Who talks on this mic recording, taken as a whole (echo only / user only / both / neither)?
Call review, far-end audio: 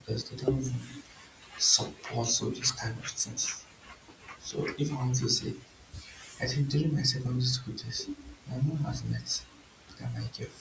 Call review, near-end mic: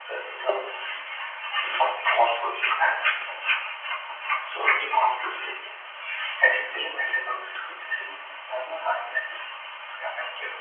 echo only